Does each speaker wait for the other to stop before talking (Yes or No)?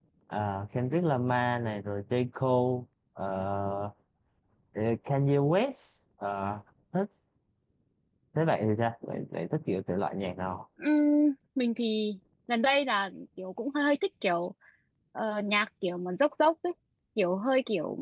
Yes